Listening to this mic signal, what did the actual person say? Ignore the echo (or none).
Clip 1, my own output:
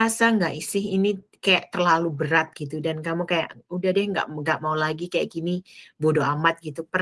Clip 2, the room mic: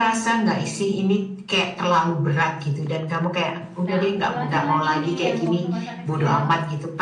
nah aku ulangin lagi nih yang waktu masa kecil,